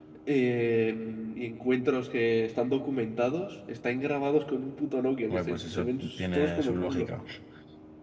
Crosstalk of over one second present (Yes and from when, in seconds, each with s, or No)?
Yes, from 5.3 s